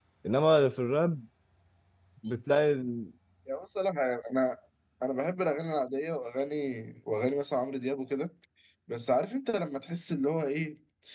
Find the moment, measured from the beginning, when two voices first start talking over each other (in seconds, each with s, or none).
none